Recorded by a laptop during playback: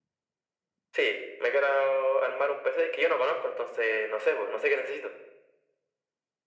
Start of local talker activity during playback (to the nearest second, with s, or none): none